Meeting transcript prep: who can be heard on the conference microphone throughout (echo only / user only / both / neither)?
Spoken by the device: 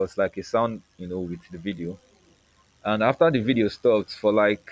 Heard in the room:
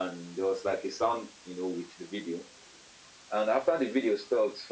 echo only